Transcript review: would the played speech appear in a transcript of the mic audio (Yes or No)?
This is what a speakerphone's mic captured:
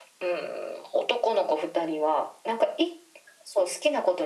Yes